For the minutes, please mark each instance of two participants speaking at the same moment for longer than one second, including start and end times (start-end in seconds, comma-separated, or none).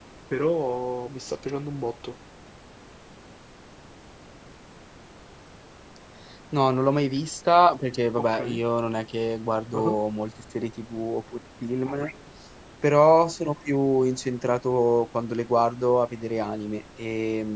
none